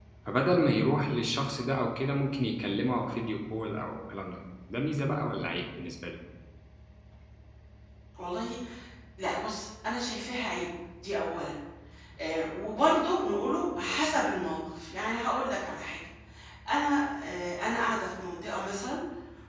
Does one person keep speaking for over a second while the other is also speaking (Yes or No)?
No